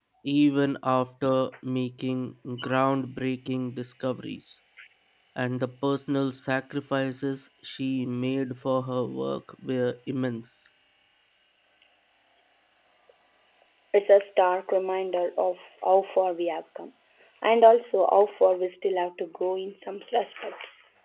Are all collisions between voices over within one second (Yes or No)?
Yes